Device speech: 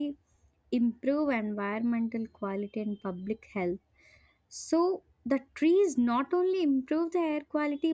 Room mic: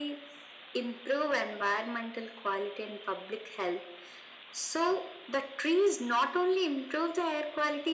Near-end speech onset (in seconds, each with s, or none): none